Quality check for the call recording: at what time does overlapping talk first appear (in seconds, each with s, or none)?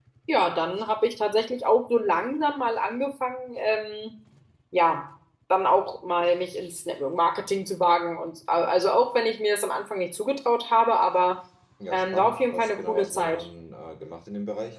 11.9 s